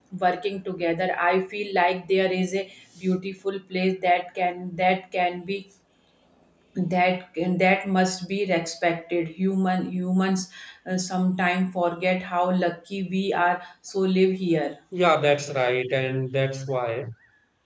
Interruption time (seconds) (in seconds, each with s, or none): none